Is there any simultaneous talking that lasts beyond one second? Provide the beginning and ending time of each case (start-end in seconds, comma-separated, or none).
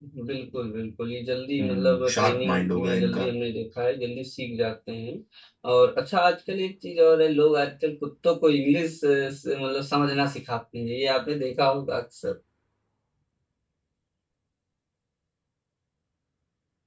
1.6-3.3